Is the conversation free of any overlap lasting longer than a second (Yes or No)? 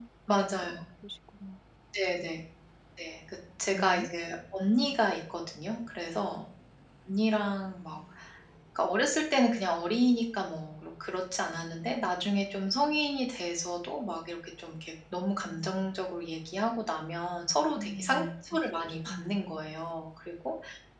No